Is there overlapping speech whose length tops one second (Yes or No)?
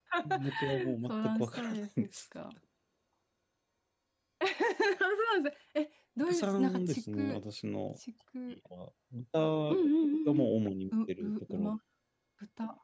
Yes